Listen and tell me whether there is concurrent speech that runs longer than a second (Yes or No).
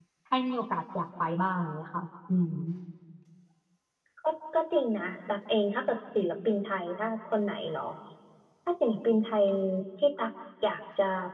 No